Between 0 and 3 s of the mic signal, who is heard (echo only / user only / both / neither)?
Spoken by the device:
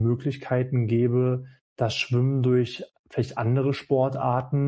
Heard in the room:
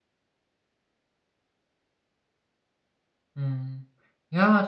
neither